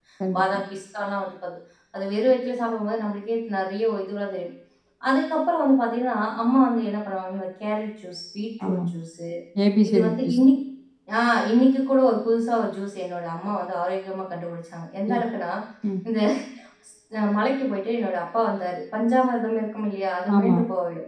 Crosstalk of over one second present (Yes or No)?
No